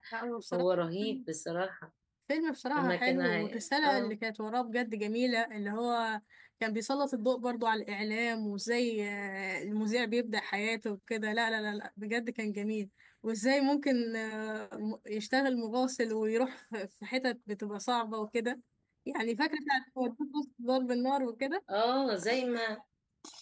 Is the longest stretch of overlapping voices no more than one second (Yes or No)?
No